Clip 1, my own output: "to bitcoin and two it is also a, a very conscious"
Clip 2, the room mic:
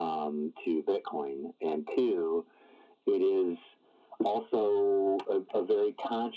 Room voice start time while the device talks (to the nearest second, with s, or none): none